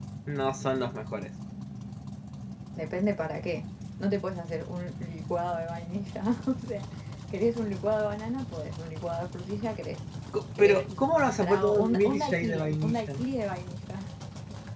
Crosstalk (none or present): present